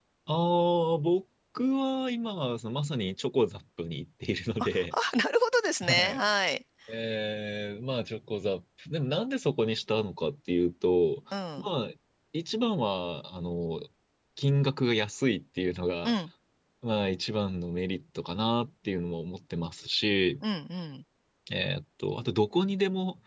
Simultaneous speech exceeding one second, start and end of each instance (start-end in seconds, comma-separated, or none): none